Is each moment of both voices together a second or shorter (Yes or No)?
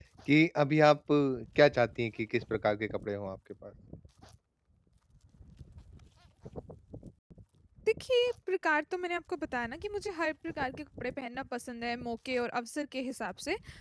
Yes